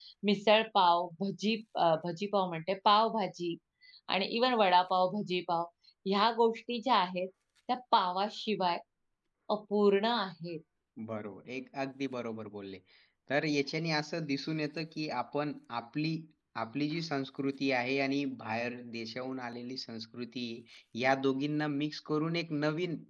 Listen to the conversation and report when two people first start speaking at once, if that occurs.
none

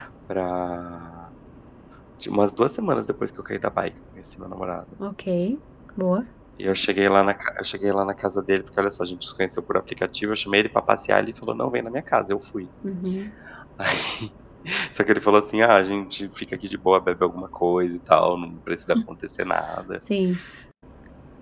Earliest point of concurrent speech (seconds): none

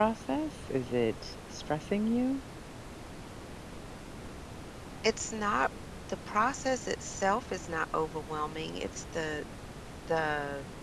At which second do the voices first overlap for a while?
none

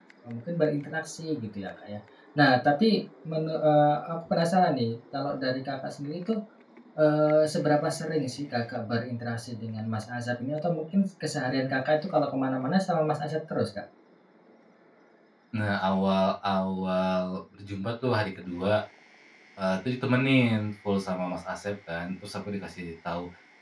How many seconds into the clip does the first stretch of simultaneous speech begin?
none

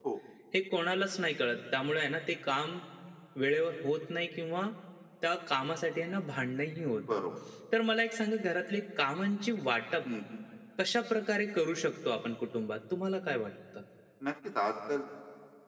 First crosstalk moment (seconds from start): none

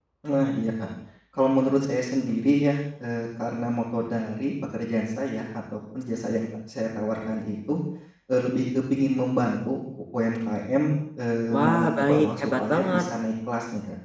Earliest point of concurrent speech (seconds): 11.5 s

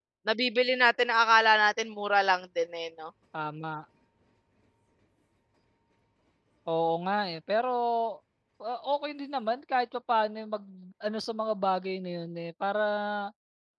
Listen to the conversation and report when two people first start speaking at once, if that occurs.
none

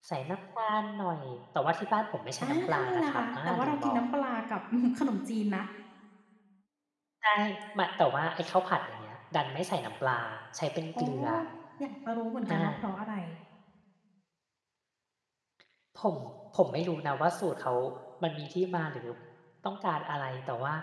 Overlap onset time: 2.4 s

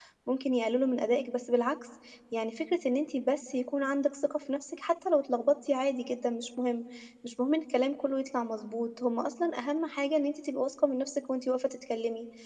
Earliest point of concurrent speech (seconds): none

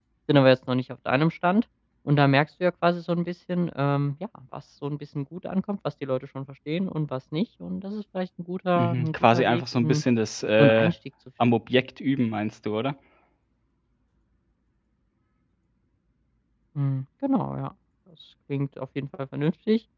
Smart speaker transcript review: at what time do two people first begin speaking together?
8.8 s

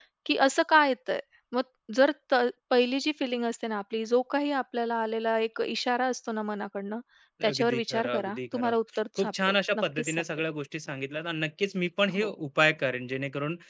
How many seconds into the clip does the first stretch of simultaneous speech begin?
7.5 s

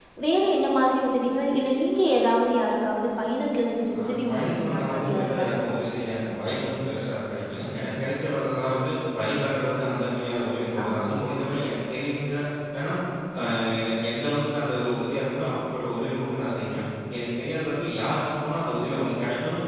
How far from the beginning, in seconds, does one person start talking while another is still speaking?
4.0 s

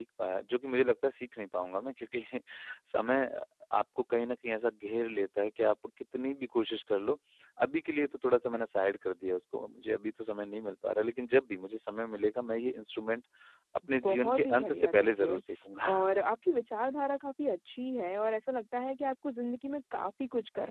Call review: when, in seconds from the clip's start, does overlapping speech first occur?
14.0 s

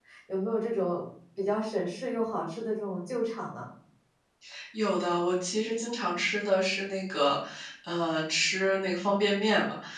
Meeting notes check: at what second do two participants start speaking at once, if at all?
none

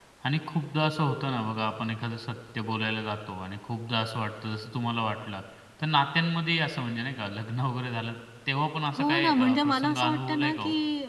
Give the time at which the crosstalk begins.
9.0 s

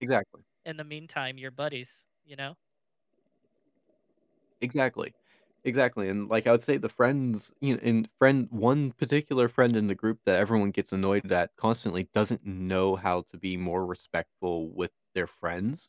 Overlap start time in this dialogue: none

